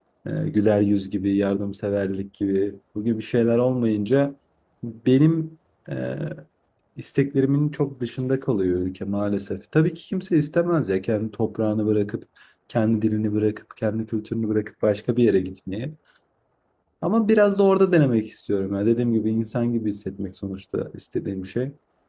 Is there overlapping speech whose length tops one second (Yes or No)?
No